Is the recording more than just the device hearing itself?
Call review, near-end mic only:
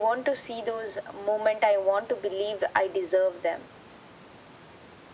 No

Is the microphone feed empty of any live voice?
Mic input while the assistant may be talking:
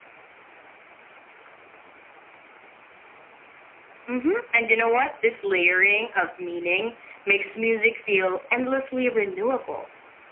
Yes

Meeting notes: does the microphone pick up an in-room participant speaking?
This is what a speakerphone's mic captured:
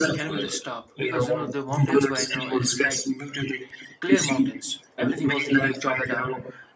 Yes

